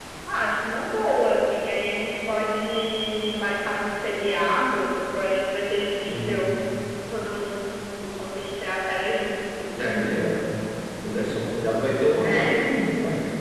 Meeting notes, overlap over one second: none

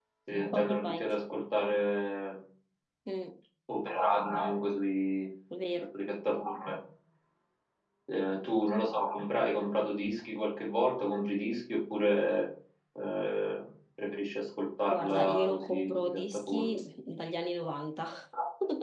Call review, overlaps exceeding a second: present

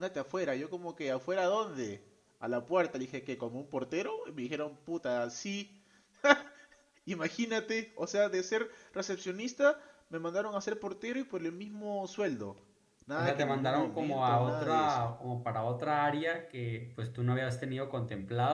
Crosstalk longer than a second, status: present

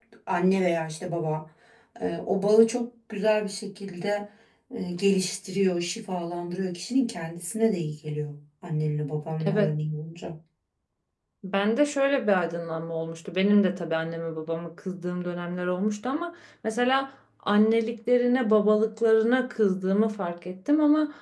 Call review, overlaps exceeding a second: none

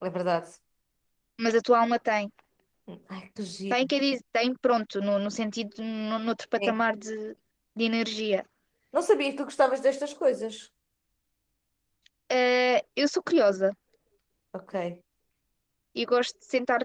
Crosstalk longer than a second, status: none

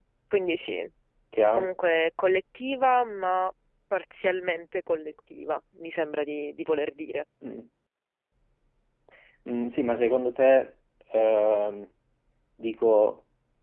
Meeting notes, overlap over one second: none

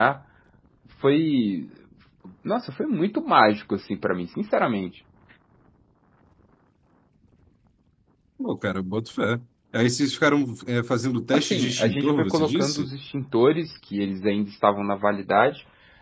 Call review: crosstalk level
present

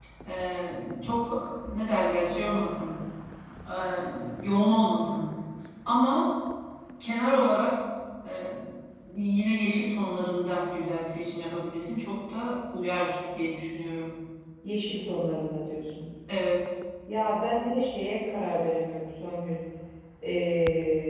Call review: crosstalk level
none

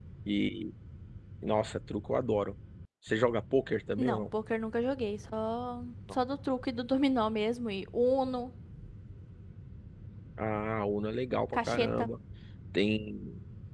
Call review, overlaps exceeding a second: none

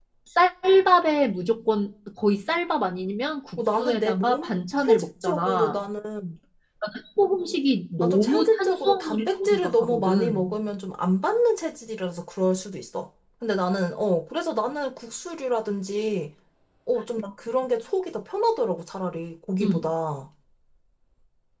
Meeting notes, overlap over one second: present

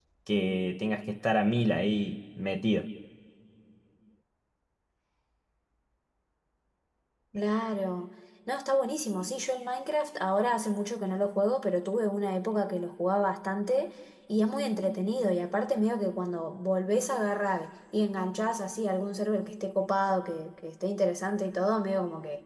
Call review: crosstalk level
none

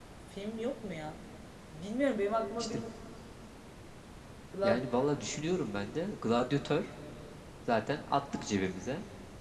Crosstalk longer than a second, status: none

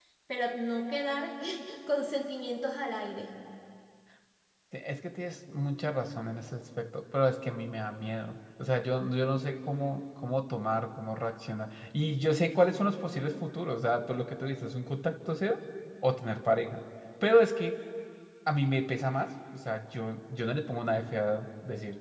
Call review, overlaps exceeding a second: none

